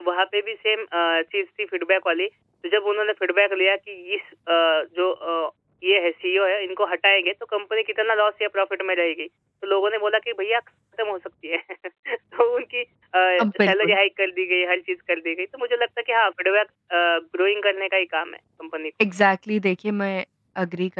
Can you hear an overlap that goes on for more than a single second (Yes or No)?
No